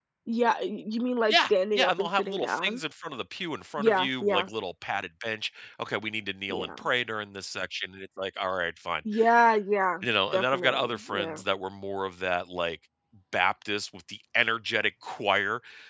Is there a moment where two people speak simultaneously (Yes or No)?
Yes